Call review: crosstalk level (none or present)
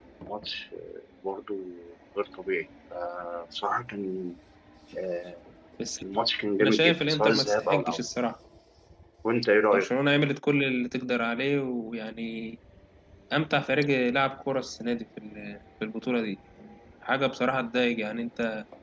present